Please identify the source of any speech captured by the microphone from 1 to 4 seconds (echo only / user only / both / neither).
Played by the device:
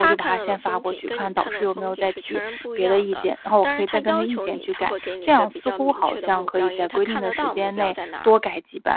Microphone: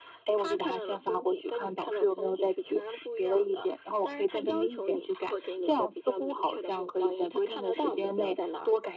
echo only